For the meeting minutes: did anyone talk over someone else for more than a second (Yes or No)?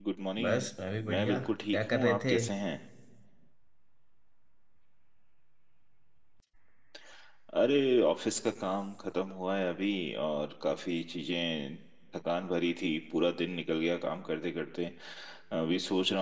Yes